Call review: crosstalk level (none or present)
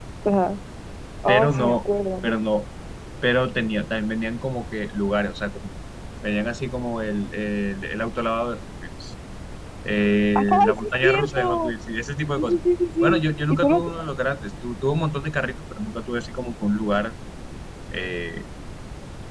present